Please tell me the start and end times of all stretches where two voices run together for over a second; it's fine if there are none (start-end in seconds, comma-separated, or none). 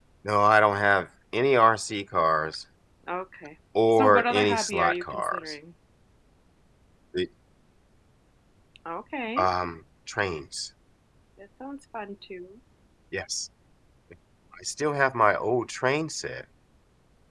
3.9-5.4